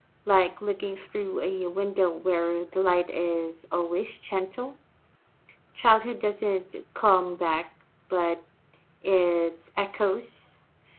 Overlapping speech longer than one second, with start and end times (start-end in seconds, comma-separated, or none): none